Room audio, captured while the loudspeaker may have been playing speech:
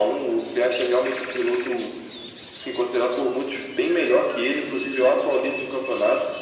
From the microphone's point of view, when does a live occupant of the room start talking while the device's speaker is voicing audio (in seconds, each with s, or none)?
none